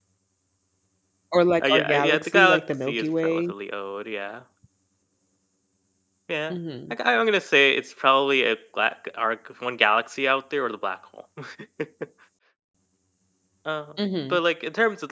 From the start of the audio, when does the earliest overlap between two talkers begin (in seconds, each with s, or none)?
1.6 s